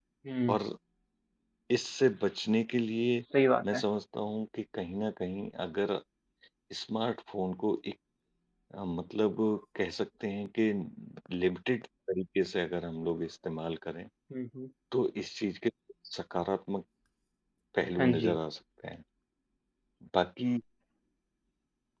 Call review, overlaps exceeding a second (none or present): none